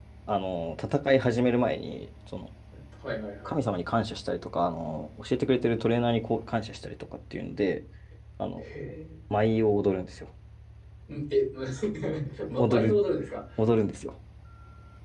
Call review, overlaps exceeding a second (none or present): none